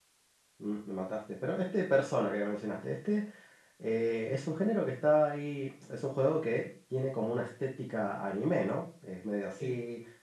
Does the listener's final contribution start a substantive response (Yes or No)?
No